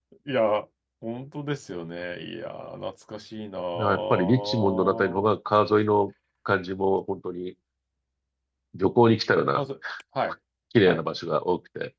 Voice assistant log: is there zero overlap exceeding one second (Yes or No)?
No